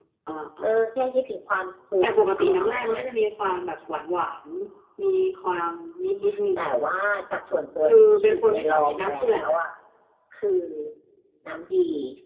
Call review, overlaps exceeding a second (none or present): present